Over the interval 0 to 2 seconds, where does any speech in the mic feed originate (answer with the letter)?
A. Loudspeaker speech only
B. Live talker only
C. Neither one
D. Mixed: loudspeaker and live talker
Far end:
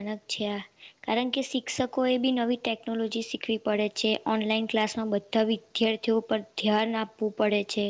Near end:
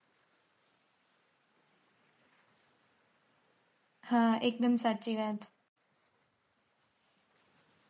C